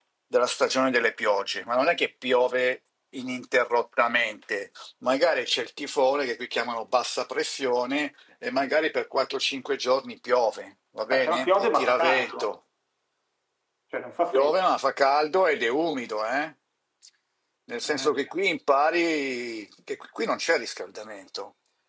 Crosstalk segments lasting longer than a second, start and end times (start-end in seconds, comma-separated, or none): 11.1-12.5